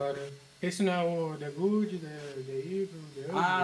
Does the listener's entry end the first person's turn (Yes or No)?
Yes